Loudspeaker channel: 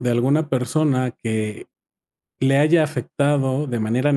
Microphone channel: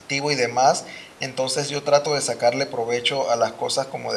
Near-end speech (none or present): present